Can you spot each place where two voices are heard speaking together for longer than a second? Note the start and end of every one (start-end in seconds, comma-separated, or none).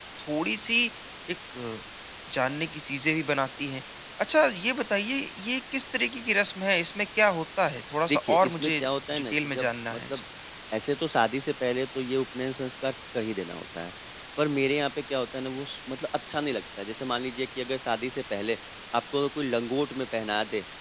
8.1-10.2